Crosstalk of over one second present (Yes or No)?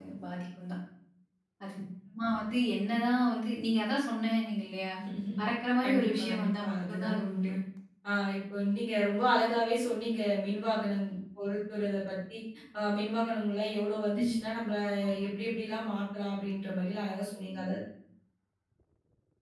Yes